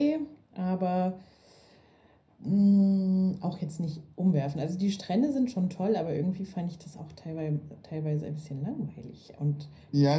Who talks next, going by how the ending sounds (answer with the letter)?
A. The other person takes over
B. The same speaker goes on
A